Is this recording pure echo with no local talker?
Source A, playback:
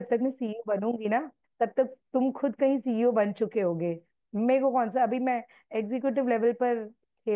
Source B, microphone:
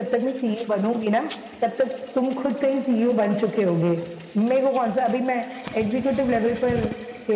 Yes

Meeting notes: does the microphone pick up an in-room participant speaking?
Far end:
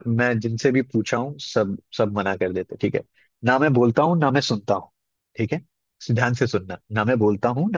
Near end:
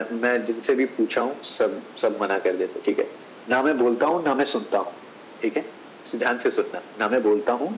No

